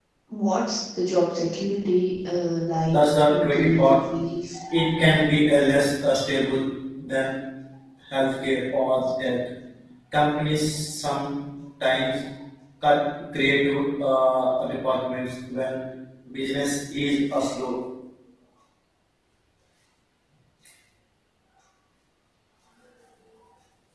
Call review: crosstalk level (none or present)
present